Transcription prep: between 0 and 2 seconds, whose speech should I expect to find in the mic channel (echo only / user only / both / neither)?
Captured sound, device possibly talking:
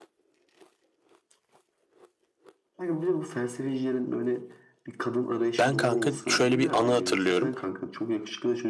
neither